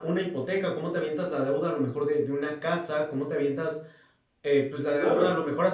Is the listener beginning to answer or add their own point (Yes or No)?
No